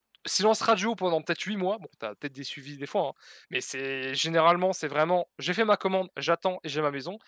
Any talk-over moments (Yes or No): No